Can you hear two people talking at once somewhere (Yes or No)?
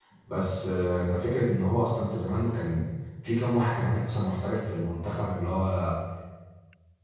No